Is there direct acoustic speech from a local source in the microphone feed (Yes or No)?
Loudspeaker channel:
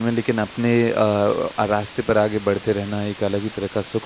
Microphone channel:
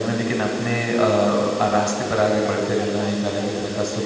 Yes